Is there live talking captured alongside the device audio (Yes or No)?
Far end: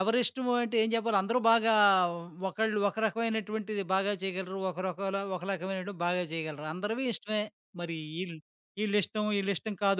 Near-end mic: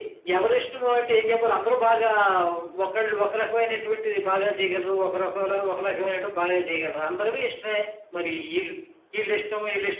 No